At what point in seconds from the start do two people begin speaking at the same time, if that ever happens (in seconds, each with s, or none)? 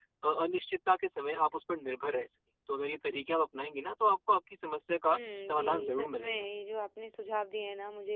5.0 s